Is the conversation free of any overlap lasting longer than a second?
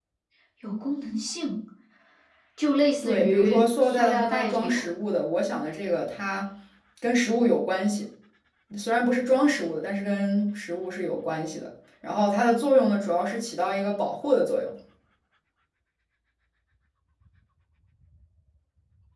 No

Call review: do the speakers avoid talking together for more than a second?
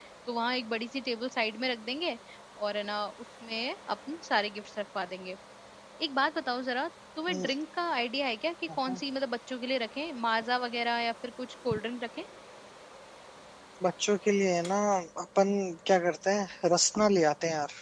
Yes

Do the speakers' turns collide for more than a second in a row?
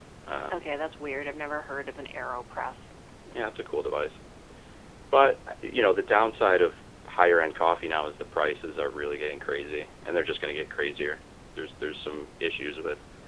No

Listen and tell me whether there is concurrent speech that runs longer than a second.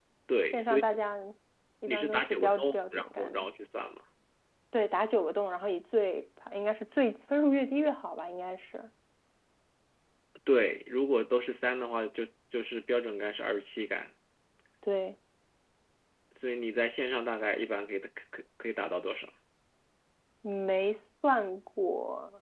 Yes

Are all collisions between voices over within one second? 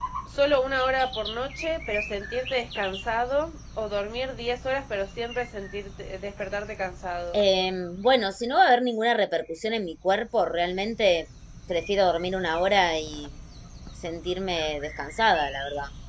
Yes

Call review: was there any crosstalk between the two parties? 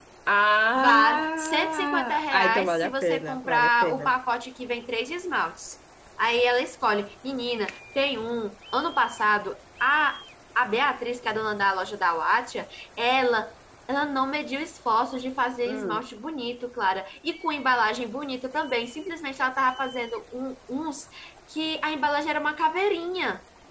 Yes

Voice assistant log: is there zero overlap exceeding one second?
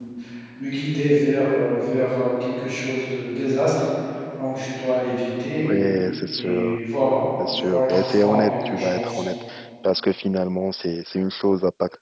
No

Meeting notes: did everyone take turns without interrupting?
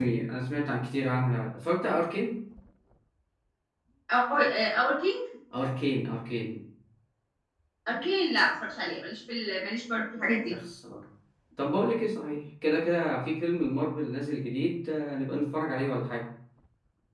Yes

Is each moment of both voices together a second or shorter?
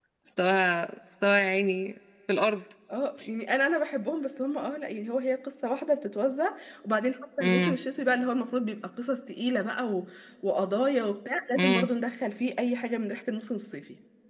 Yes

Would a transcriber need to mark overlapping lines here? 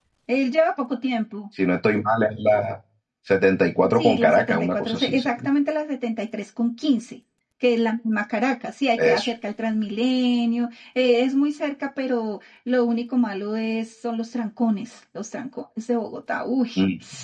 Yes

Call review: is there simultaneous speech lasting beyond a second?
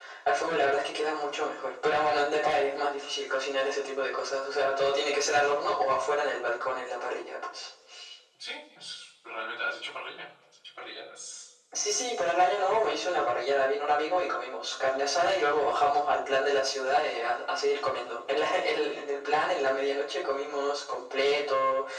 No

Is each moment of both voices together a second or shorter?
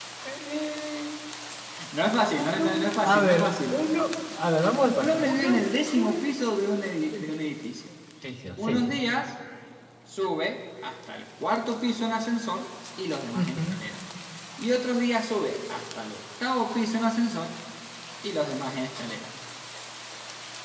No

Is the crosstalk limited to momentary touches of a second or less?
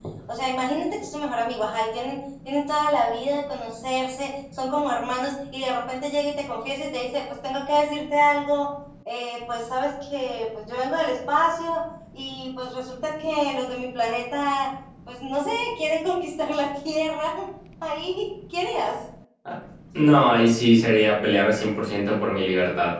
Yes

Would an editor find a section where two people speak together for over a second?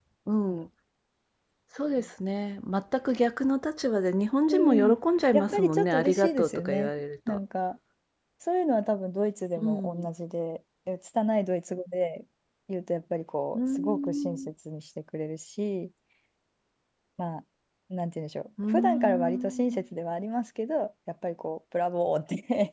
Yes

